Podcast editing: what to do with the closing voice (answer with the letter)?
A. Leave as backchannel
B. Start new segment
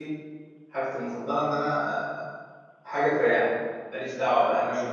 A